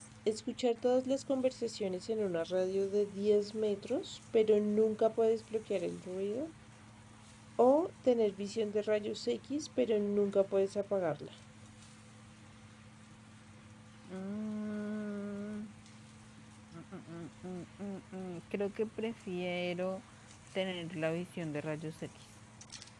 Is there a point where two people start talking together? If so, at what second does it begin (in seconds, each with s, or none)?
none